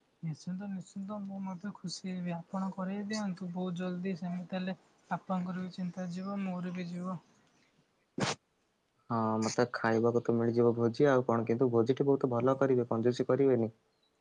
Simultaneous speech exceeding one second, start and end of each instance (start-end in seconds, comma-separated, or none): none